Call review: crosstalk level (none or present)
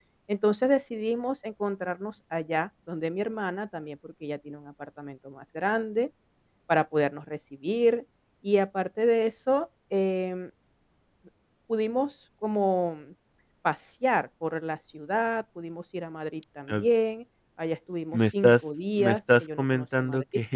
present